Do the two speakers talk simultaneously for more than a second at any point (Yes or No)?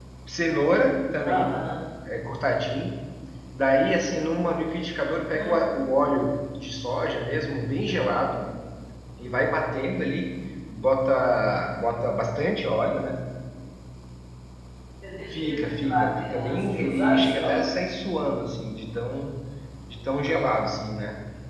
Yes